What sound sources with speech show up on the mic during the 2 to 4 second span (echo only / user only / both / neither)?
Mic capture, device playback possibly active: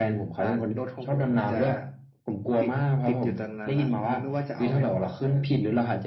echo only